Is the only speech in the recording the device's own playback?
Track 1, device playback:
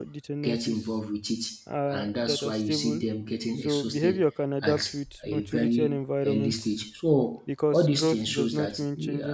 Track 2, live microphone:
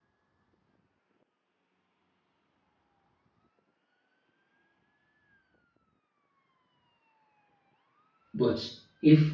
No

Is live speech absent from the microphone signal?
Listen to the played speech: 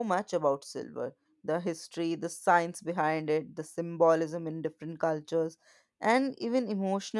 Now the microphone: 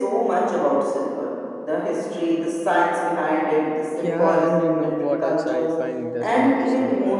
No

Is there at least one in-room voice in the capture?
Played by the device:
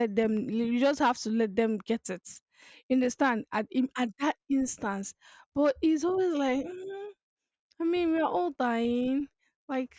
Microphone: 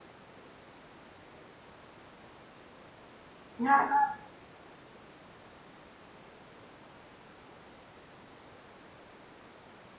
Yes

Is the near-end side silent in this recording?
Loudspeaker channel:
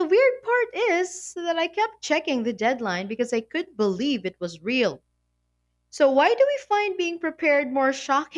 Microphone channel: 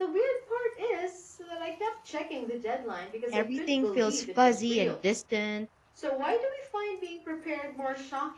No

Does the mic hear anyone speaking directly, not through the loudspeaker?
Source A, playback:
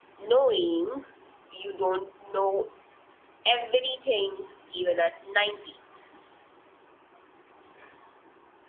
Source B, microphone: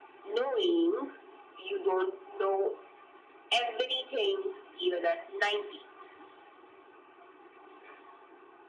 No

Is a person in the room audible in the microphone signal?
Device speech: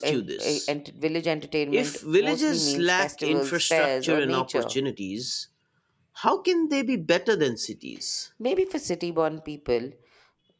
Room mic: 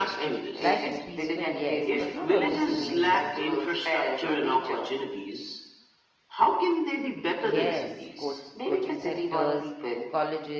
Yes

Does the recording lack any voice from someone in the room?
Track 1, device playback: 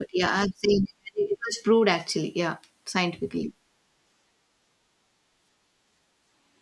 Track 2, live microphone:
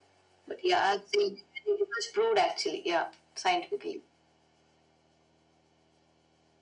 Yes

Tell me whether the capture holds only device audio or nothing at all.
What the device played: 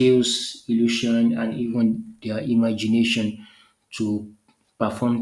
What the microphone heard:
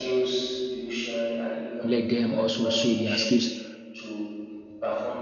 No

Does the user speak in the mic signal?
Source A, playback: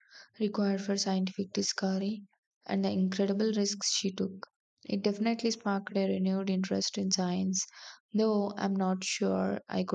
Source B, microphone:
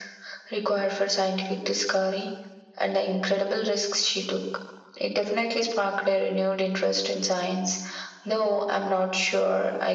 No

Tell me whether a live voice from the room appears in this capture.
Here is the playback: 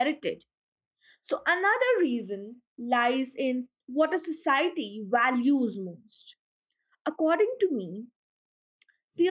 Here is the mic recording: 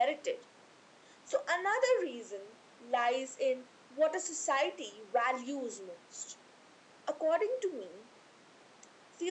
No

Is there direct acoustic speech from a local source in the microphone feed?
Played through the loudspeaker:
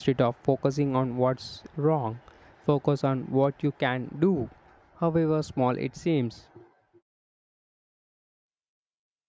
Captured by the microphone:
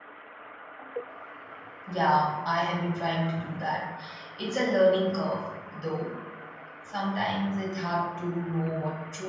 Yes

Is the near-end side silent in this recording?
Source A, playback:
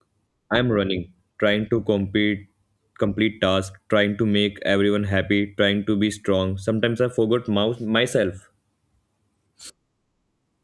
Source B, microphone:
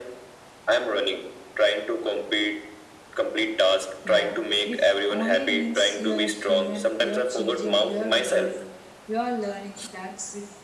No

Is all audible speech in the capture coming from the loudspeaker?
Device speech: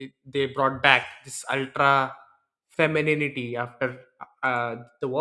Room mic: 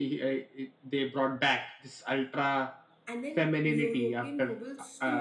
No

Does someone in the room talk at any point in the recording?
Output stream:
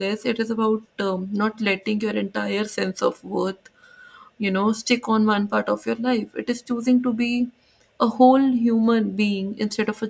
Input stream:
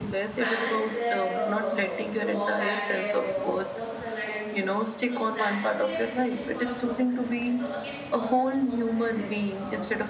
Yes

